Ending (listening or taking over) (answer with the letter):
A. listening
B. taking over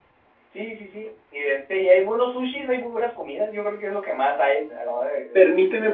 B